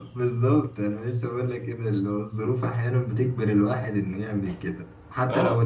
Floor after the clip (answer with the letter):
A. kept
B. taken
A